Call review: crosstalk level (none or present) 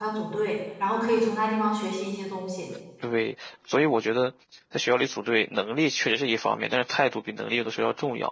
none